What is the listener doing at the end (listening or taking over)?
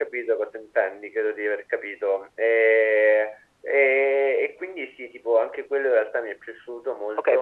taking over